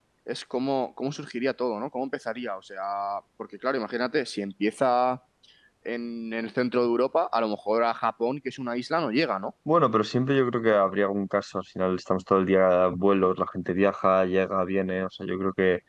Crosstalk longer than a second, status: none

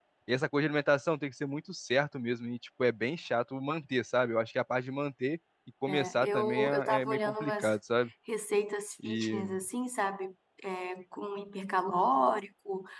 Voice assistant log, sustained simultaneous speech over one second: present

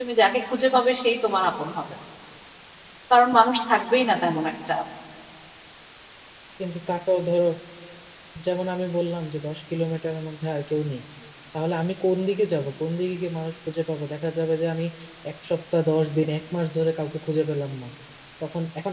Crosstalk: none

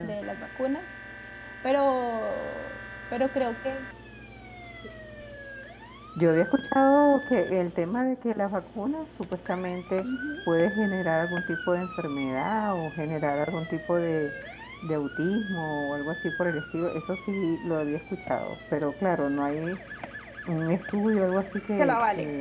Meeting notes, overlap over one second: none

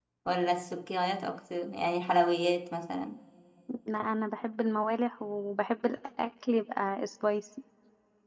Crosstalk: none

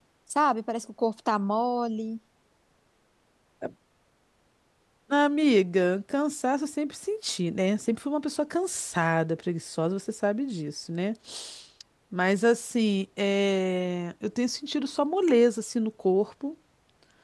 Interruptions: none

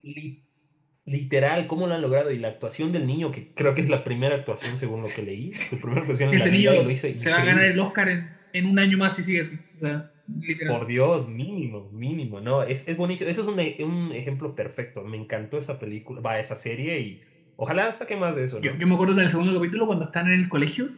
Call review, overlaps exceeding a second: present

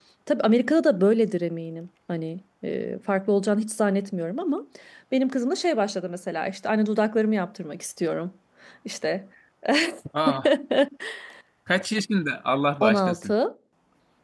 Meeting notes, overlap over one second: none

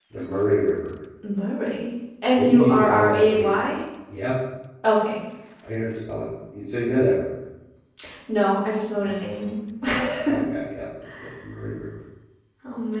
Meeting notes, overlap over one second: present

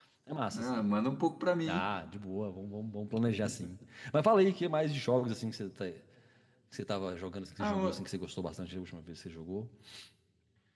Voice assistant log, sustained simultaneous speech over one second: none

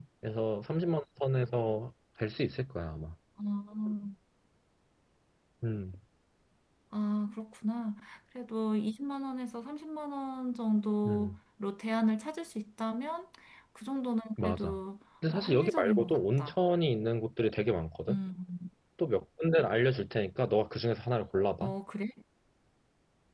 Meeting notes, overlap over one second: present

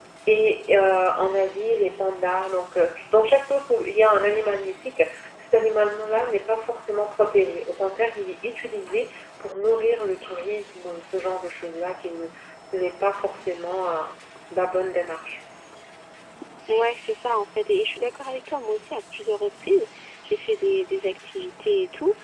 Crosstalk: none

